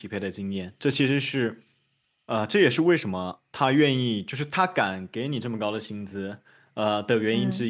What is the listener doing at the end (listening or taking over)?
listening